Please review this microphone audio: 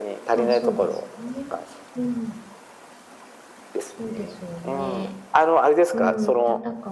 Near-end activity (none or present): present